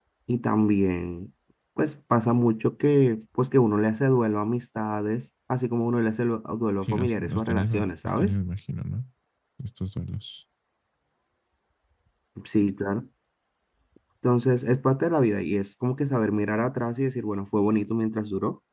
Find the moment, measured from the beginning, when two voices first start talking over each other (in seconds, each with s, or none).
6.8 s